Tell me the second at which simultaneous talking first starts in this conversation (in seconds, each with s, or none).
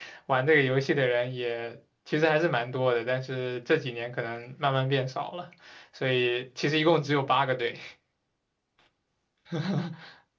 none